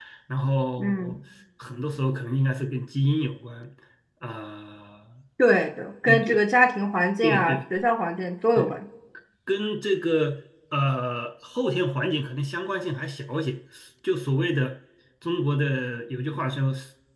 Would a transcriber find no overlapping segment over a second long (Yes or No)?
Yes